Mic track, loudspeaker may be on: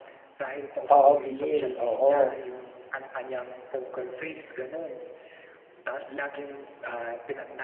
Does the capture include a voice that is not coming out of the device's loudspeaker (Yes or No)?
Yes